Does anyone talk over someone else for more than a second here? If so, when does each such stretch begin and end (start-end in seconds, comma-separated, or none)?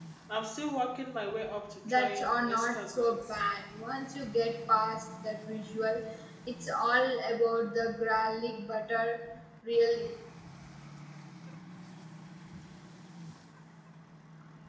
1.9-3.1